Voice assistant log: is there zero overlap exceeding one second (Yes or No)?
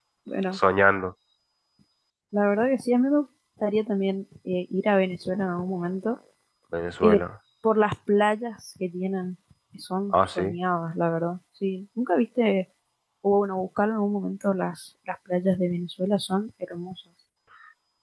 Yes